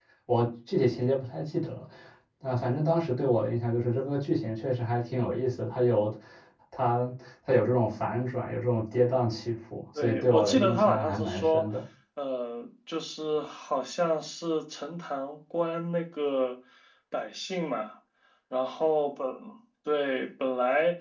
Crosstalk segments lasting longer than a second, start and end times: 10.0-11.6

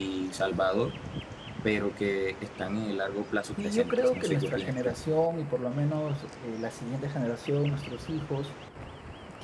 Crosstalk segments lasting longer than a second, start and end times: 3.6-4.9

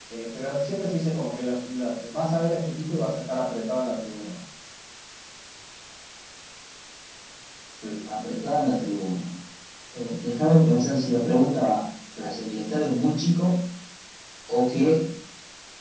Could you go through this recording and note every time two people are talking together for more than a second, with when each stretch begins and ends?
none

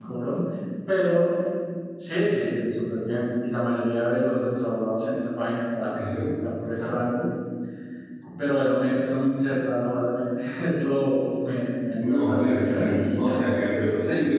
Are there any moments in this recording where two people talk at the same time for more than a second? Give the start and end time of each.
12.0-13.4

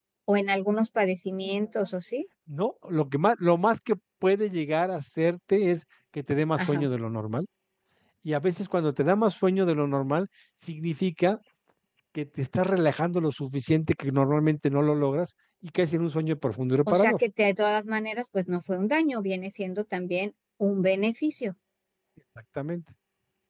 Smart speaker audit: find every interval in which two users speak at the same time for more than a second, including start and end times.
none

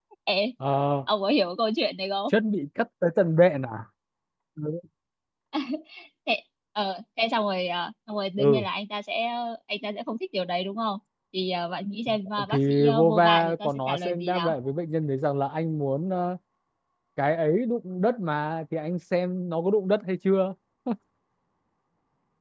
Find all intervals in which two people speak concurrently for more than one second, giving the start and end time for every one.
12.5-14.5

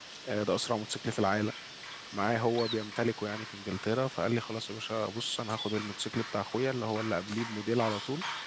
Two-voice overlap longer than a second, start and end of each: none

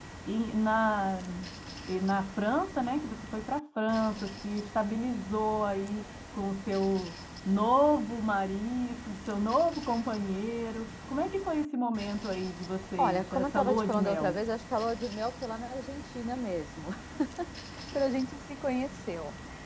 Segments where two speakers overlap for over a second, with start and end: 13.0-14.4

